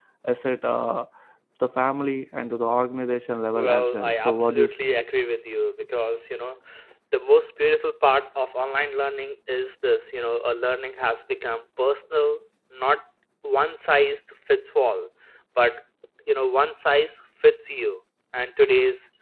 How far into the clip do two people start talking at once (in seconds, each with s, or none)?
3.5 s